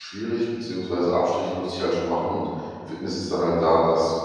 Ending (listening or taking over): listening